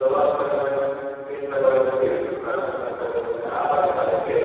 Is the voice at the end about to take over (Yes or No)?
No